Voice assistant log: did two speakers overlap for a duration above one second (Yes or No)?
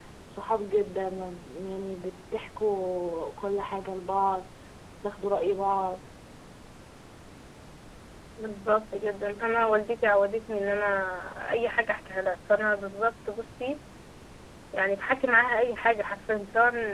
No